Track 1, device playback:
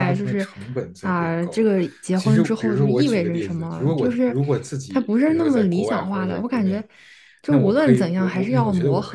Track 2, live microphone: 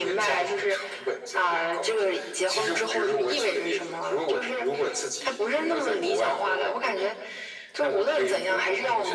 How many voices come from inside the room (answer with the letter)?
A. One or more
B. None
B